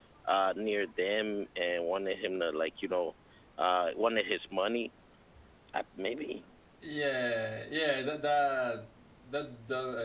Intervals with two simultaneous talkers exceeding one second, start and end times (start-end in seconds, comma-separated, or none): none